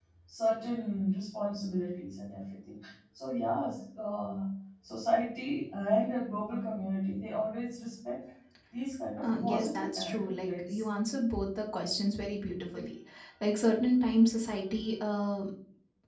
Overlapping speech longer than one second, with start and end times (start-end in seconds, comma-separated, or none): 9.2-10.8